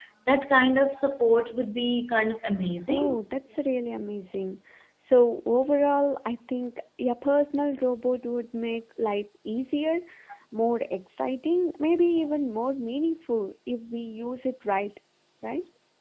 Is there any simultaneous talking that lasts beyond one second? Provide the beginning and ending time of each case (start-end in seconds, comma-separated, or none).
none